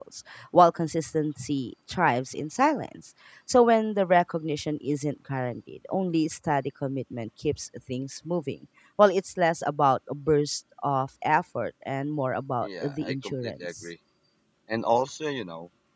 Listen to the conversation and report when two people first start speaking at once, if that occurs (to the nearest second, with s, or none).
13 s